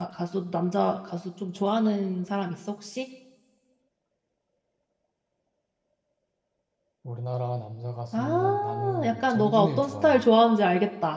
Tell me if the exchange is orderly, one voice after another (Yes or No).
No